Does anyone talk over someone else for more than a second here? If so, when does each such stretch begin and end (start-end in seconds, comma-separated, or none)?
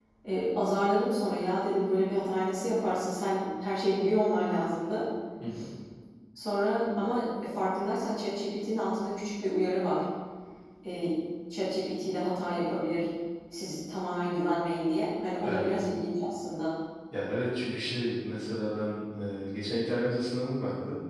none